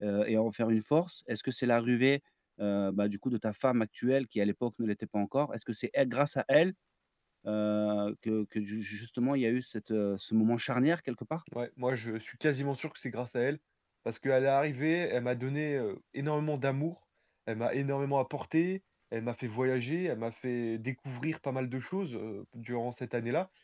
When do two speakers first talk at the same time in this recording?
none

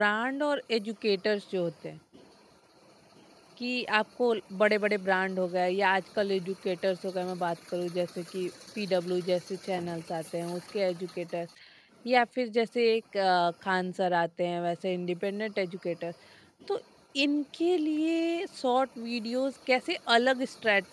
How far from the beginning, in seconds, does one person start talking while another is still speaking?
none

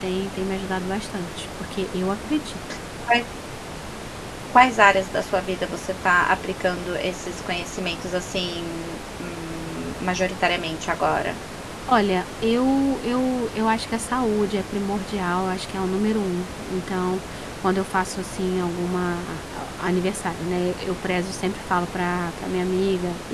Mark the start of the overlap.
none

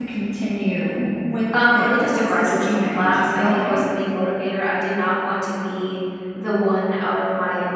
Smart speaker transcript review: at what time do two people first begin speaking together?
1.5 s

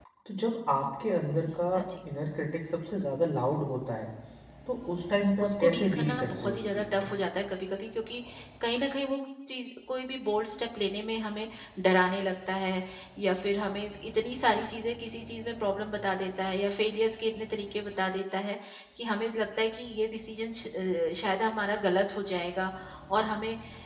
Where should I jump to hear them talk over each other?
5.4 s

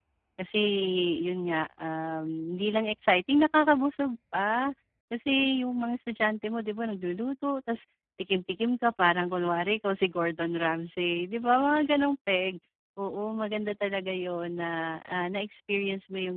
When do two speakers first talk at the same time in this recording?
none

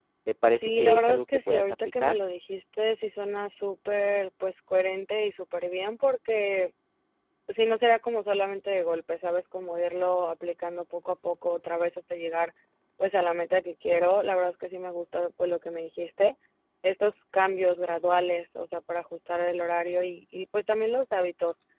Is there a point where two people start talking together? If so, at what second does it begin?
0.6 s

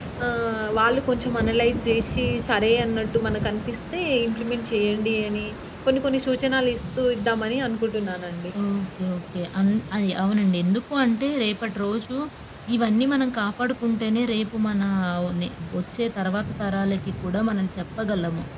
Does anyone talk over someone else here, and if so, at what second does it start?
none

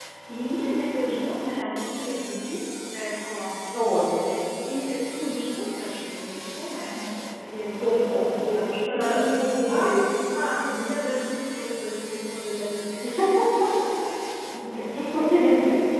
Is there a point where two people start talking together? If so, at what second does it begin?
7.8 s

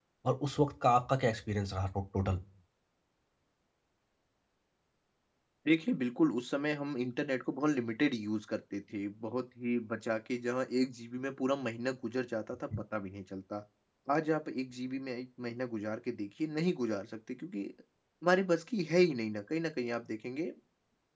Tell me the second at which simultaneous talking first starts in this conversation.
none

